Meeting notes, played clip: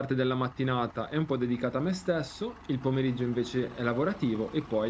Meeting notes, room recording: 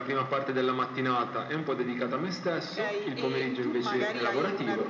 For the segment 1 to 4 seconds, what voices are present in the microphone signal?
both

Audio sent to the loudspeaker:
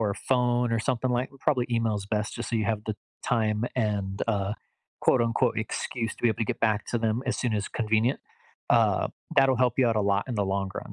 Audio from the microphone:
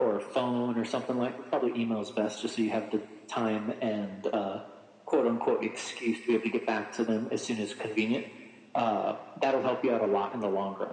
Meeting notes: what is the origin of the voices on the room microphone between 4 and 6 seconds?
echo only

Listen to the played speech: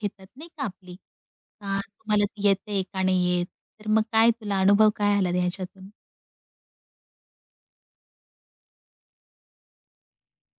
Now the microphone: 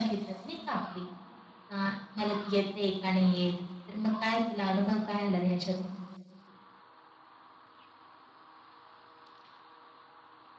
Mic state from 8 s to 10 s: neither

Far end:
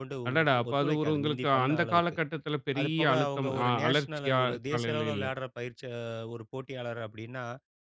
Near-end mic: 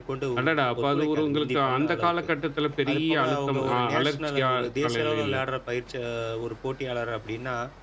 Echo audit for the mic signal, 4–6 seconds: echo only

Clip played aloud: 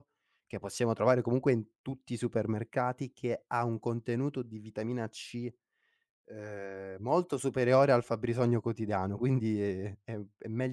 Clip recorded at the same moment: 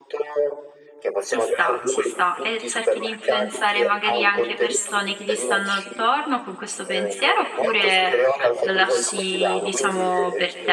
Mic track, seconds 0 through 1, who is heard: echo only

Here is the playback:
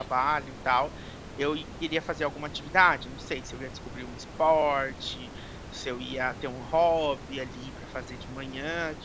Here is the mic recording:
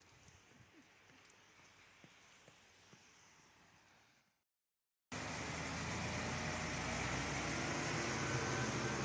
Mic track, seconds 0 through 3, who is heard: neither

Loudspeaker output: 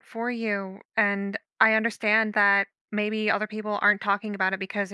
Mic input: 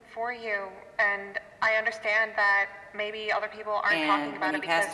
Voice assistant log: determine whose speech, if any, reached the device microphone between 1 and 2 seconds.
echo only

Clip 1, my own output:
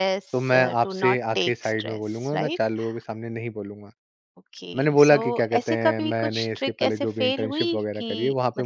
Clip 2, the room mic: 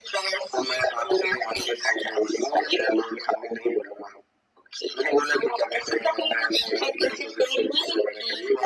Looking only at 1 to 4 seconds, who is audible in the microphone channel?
echo only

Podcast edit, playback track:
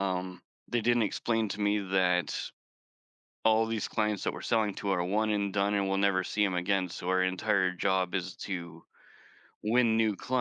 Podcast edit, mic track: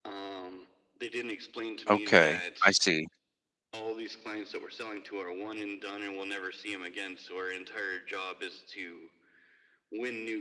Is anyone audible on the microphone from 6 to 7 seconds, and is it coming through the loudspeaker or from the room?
echo only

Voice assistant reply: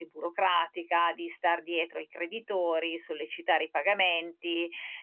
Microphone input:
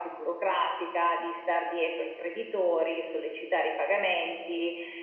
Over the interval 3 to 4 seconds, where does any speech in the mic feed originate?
echo only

